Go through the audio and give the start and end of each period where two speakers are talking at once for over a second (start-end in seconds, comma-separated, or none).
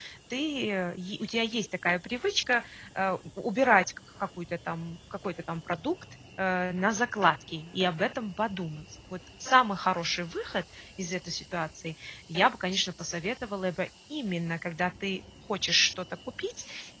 none